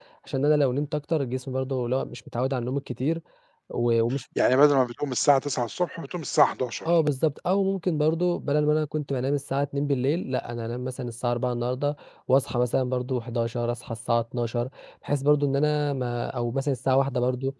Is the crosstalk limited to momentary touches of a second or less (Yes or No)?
Yes